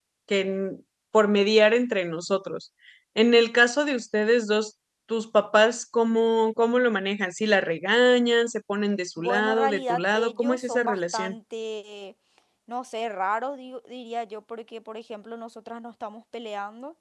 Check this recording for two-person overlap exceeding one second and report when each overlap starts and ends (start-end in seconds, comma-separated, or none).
9.2-11.3